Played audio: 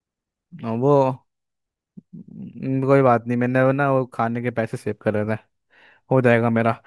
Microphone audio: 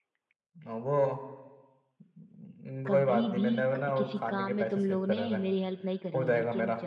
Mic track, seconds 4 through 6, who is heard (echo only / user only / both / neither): both